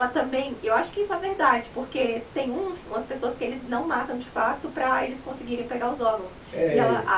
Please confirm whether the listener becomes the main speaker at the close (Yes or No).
No